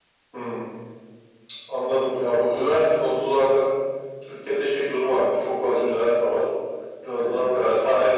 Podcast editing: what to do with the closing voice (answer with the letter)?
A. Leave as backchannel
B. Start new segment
A